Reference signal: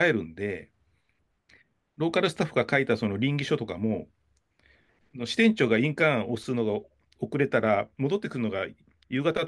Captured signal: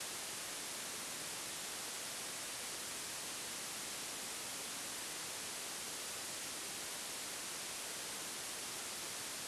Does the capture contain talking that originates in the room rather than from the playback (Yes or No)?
No